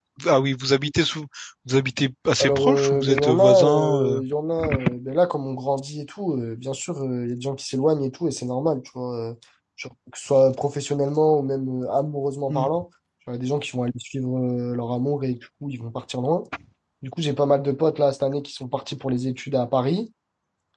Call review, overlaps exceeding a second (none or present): present